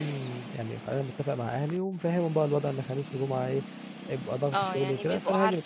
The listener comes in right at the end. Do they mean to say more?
Yes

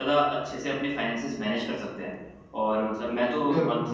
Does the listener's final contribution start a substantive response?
No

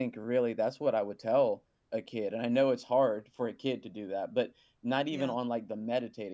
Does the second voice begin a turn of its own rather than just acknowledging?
No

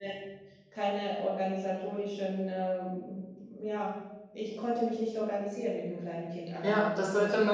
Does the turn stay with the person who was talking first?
No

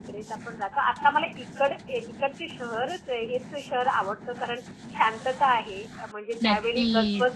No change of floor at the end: Yes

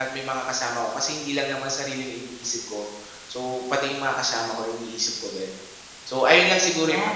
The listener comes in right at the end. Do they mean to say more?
Yes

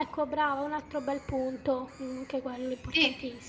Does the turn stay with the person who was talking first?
No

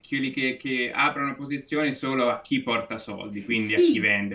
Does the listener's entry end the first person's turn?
Yes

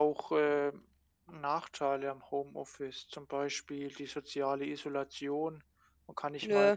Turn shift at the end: No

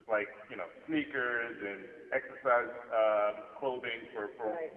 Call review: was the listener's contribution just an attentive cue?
Yes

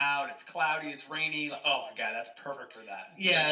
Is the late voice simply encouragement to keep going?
No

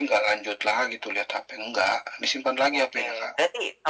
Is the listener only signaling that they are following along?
No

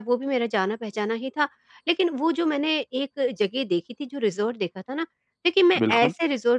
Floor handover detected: No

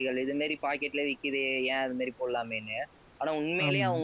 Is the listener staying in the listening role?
Yes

